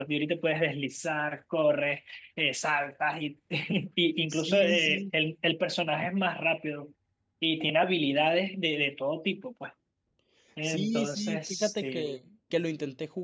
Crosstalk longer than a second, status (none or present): present